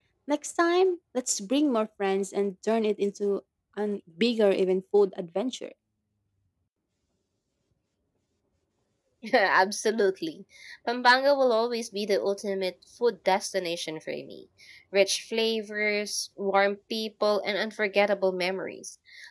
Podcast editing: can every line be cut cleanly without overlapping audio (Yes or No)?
Yes